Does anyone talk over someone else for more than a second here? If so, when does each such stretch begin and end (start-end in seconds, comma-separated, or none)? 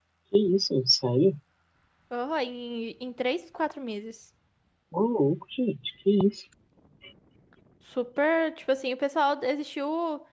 none